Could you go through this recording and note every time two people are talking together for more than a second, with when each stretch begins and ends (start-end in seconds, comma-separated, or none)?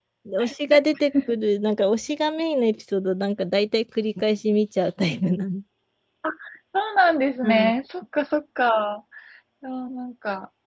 none